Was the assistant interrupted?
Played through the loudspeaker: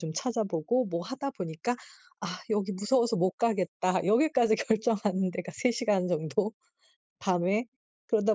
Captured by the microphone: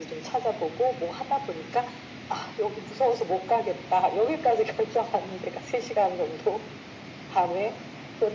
No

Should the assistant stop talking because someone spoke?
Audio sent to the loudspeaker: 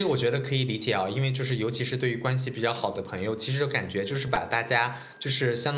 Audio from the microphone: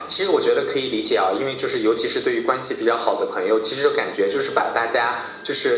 No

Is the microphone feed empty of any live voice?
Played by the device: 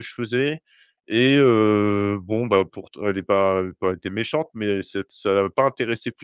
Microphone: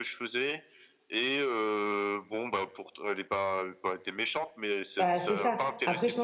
No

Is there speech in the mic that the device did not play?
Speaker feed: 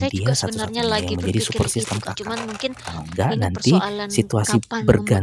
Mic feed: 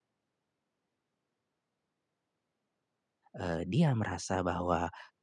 Yes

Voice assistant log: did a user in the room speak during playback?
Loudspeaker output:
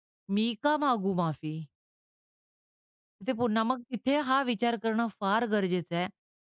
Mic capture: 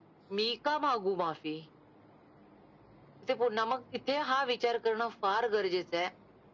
No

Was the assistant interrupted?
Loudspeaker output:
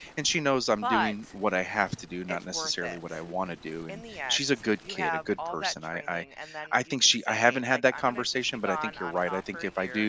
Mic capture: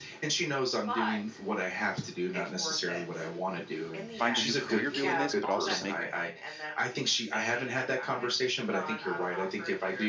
Yes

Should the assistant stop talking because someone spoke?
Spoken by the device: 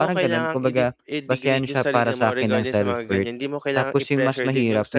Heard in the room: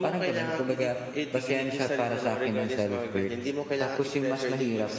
No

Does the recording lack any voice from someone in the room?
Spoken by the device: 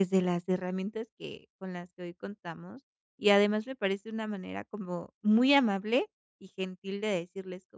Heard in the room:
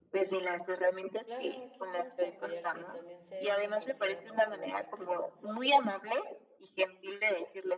No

